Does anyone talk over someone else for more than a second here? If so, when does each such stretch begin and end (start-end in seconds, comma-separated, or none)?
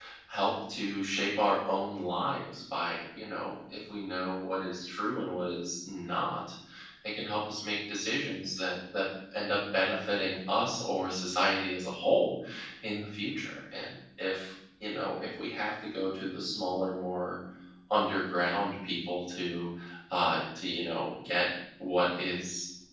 none